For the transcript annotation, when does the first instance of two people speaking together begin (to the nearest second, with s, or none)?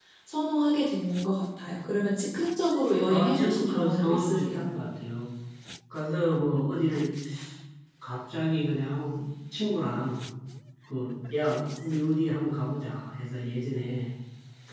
3 s